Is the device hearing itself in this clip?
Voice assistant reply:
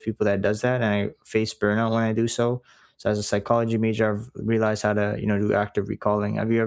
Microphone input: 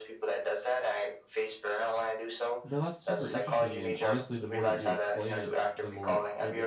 Yes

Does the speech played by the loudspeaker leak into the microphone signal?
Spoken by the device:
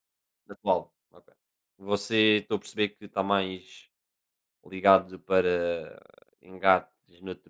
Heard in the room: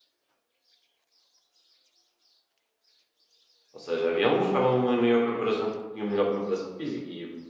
No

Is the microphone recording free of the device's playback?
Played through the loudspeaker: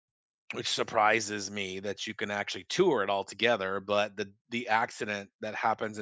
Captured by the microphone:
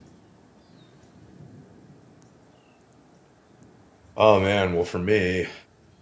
Yes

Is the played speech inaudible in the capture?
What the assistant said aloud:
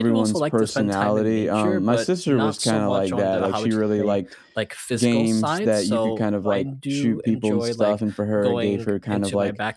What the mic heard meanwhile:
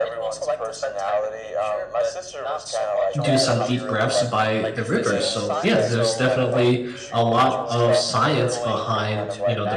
No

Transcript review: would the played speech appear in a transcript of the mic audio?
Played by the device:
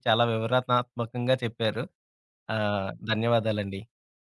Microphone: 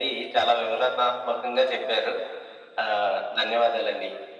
Yes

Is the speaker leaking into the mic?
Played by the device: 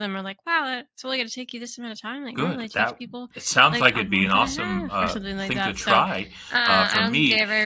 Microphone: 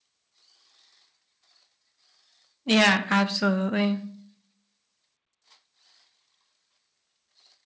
No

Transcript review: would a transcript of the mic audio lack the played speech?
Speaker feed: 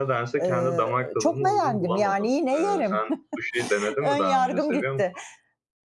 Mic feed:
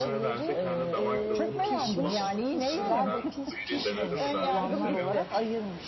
No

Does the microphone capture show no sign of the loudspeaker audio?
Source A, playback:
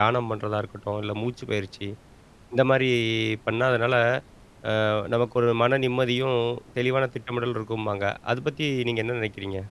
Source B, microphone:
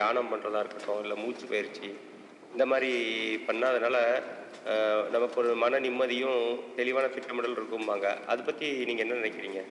No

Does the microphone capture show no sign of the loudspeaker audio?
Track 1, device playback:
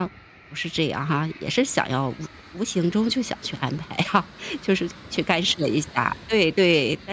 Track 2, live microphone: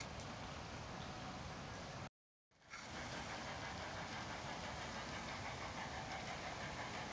Yes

